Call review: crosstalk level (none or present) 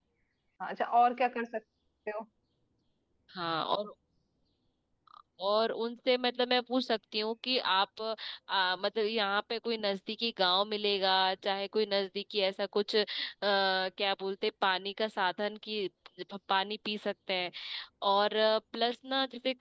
none